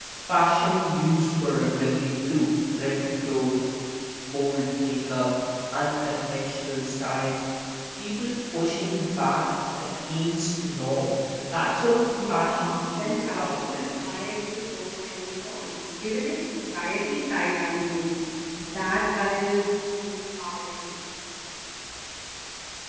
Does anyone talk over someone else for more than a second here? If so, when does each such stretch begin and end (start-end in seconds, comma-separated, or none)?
12.0-14.2